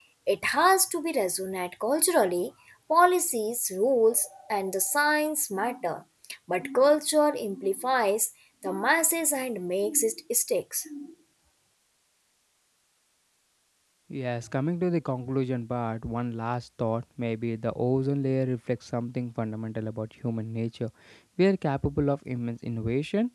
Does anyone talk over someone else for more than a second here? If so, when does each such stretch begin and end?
none

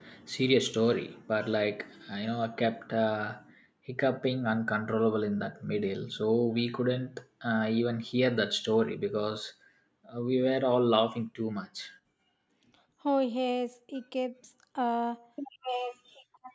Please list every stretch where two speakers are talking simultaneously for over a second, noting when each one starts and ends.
none

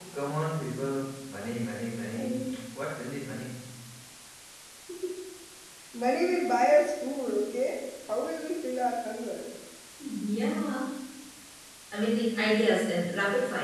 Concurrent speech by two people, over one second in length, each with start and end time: none

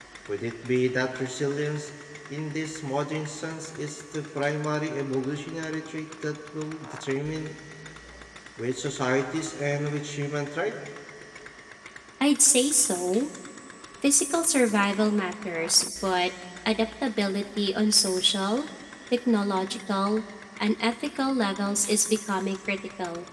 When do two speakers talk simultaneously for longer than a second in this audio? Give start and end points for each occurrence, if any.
none

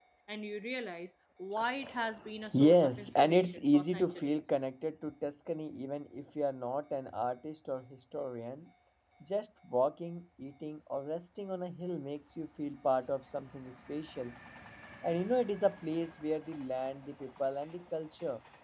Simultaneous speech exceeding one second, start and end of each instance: 2.5-4.4

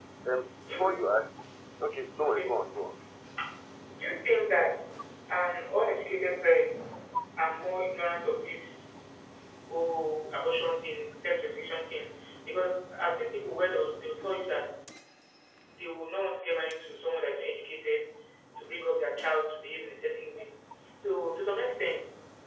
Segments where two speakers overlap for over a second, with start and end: none

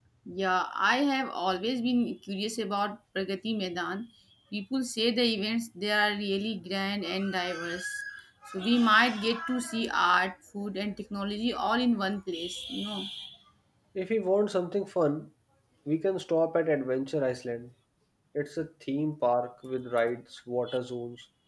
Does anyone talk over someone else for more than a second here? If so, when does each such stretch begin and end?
none

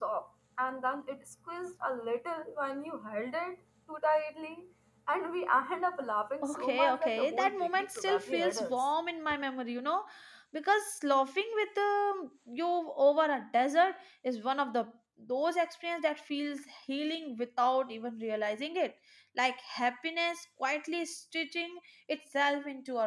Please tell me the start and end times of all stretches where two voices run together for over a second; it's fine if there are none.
6.4-8.9

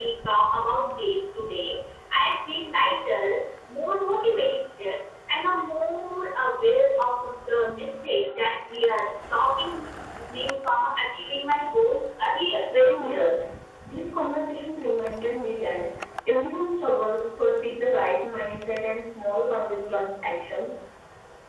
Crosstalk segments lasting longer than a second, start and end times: none

